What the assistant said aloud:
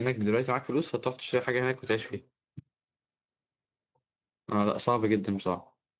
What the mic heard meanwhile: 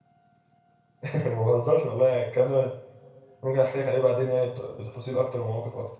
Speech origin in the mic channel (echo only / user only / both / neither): user only